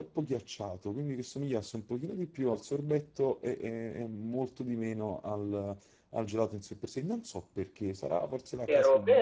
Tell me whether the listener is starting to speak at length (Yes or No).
Yes